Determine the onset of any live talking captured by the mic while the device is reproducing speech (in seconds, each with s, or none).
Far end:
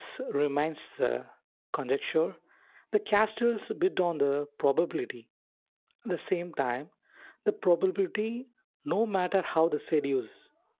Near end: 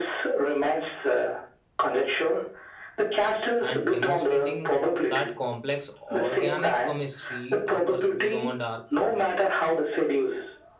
3.6 s